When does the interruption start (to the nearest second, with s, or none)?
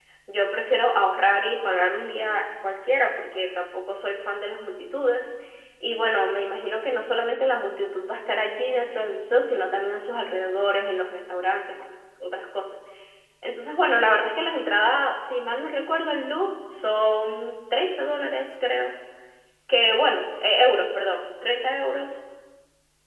none